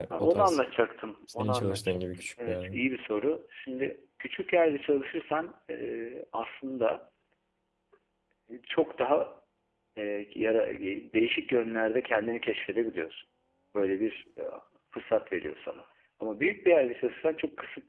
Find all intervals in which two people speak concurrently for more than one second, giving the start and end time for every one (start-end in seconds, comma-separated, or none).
1.3-2.8